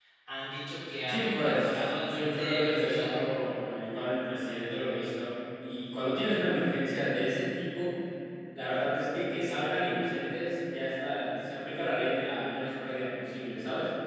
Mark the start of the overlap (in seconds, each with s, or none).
1.1 s